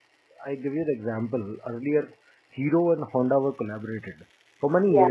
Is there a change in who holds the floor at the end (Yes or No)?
No